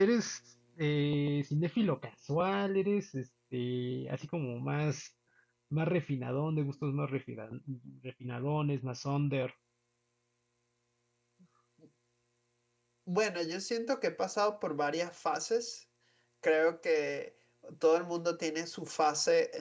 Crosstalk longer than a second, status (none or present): none